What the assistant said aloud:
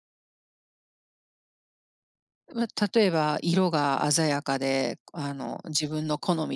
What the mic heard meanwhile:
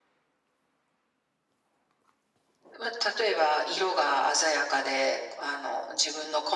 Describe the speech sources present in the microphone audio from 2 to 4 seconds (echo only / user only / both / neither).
echo only